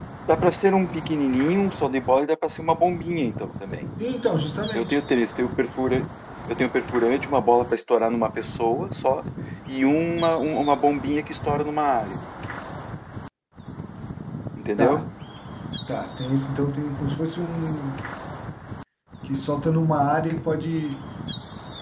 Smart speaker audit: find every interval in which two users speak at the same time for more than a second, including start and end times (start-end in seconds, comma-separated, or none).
none